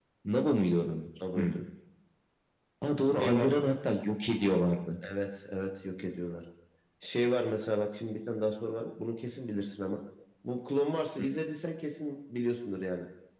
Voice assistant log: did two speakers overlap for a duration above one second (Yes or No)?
No